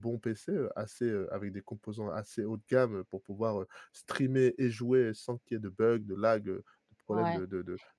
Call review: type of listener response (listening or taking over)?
taking over